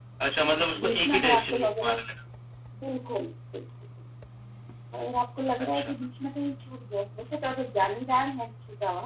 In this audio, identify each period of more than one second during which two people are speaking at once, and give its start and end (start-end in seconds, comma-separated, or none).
0.7-2.0